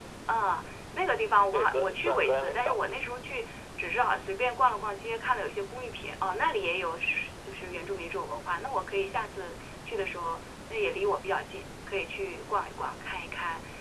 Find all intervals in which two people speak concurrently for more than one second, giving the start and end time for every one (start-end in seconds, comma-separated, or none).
1.5-3.2